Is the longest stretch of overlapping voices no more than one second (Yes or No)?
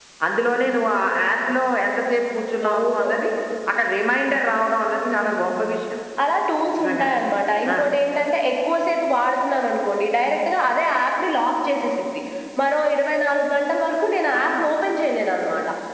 Yes